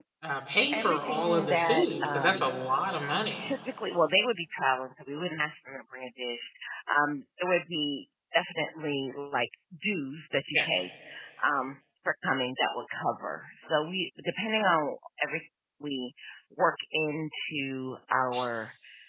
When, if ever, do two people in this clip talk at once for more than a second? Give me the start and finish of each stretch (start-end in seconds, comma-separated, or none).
0.7-2.4